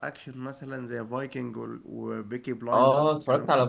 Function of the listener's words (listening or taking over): taking over